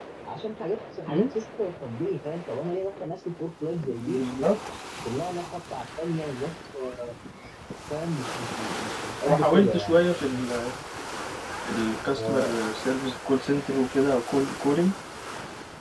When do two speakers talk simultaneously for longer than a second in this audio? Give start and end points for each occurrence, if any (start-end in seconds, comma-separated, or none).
9.3-10.5